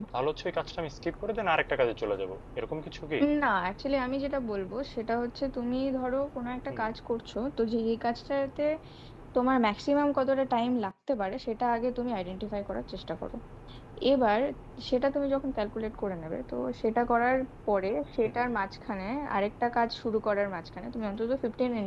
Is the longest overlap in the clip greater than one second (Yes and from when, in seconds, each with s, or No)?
No